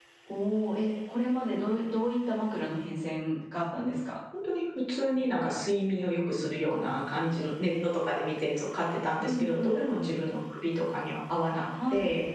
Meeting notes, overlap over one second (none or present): none